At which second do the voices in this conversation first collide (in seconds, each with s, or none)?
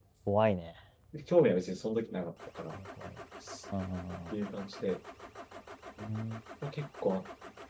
none